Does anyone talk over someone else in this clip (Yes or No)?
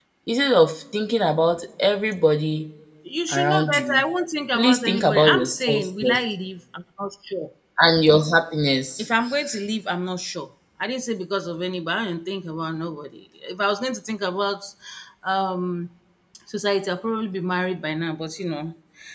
Yes